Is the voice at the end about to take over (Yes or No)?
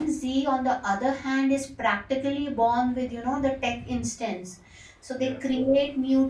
No